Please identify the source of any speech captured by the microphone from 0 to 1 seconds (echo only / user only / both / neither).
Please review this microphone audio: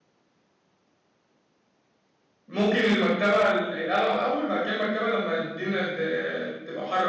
neither